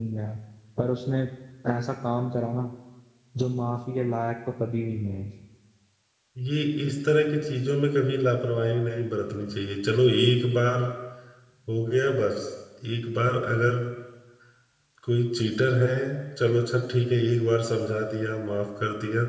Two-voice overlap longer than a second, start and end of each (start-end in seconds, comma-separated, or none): none